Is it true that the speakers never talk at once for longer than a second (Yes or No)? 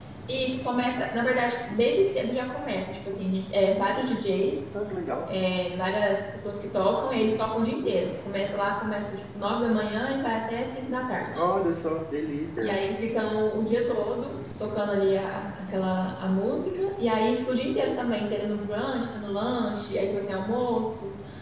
Yes